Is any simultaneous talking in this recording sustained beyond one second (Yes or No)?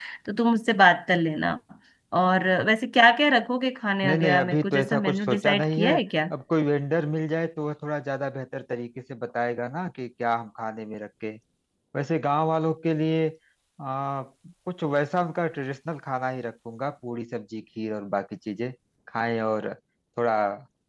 Yes